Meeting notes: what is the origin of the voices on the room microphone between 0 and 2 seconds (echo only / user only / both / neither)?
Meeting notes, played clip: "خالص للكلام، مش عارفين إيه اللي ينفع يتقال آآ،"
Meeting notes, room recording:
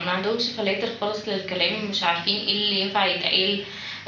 echo only